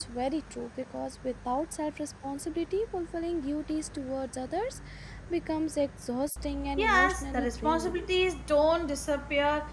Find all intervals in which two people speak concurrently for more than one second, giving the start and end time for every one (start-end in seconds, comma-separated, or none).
6.8-8.1